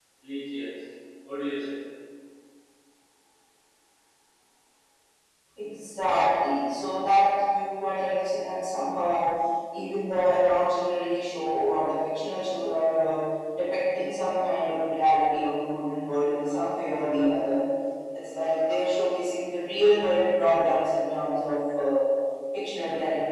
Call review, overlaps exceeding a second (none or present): none